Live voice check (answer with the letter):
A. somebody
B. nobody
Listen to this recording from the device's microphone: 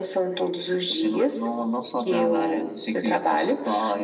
B